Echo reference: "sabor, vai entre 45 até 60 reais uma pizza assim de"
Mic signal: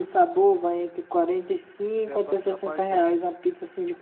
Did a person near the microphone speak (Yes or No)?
Yes